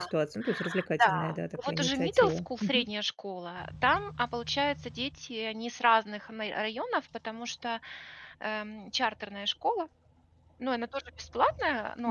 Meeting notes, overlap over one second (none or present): present